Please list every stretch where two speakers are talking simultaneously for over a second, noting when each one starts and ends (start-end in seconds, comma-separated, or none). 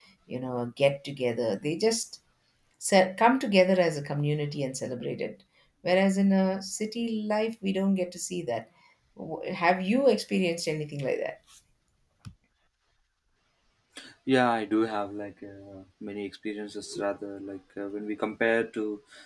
none